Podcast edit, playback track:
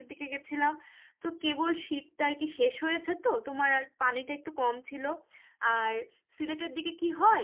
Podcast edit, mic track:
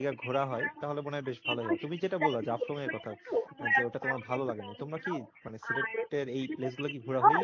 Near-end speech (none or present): present